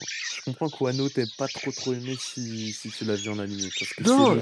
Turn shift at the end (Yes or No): Yes